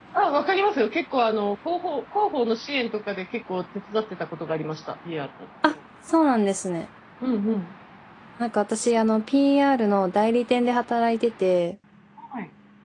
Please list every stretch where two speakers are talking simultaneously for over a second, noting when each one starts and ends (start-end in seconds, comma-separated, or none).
none